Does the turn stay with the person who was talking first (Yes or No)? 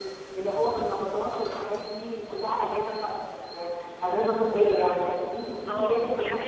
No